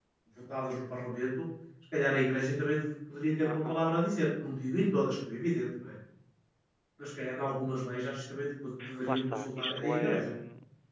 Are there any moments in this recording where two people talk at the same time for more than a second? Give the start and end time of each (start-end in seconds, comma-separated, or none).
9.1-10.3